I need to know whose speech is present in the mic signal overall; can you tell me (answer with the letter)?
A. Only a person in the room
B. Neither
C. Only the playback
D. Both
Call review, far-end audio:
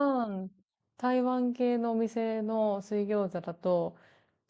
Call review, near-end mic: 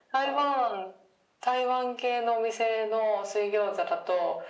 C